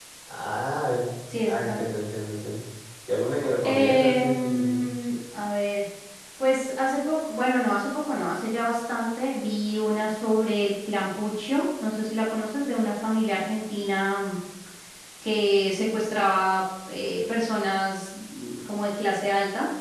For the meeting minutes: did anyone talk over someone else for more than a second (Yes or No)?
Yes